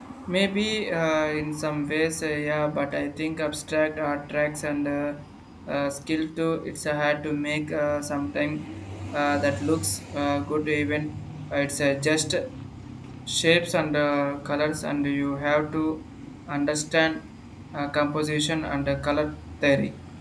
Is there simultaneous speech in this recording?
No

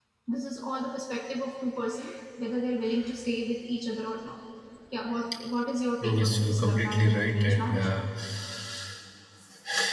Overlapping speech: Yes, from 6.0 s

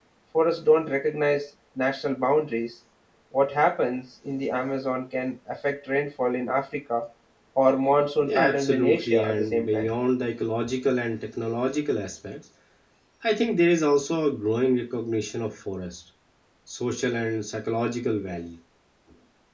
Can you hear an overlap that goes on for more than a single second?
Yes, from 8.3 s

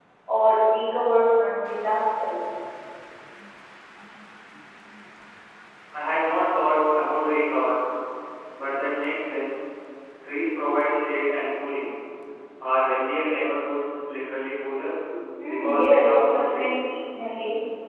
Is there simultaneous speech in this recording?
Yes, from 15.5 s

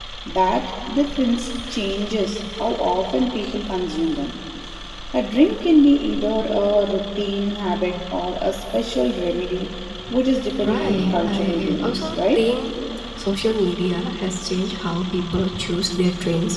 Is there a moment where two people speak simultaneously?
Yes, from 10.6 s

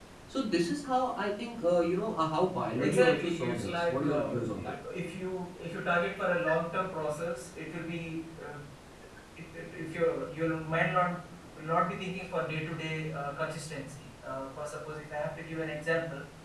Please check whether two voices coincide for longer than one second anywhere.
Yes, from 2.8 s

